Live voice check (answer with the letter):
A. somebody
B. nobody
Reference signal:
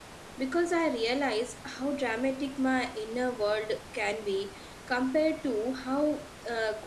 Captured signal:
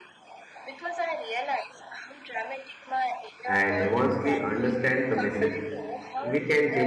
A